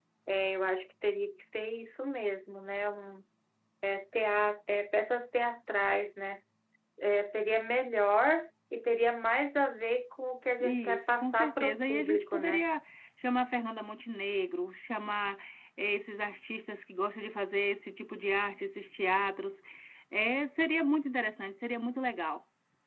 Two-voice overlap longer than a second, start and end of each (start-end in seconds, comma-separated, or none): 10.6-12.7